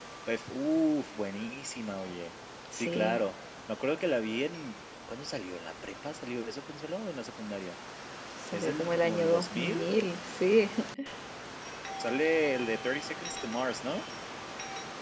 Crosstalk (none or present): present